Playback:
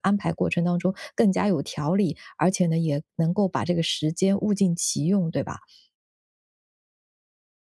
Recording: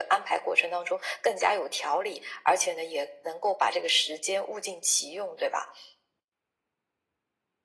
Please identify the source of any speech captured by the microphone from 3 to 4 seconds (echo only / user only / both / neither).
echo only